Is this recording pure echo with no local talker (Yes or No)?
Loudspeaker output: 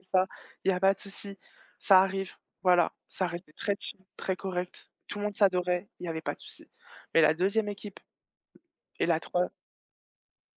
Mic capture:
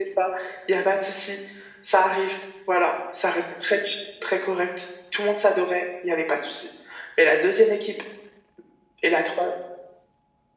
Yes